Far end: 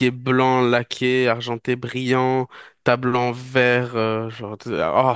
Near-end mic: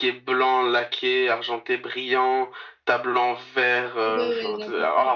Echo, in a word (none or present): present